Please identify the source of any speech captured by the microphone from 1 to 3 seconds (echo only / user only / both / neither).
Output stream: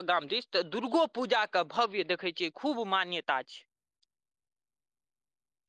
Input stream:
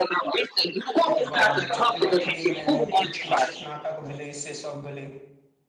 both